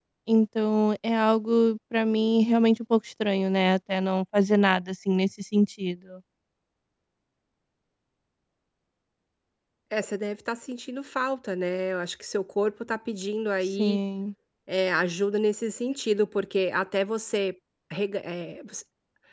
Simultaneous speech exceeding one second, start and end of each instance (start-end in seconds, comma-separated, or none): none